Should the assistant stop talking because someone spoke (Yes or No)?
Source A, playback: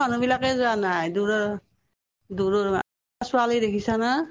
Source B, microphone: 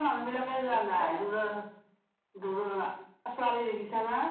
Yes